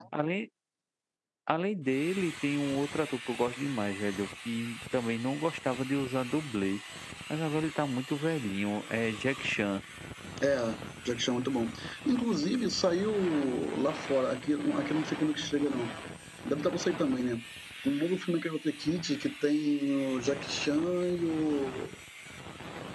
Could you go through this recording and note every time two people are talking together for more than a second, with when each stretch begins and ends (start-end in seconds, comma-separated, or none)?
none